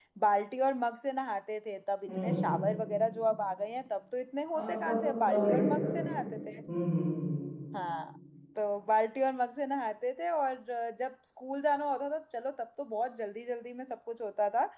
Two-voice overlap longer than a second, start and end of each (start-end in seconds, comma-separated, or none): 4.5-6.3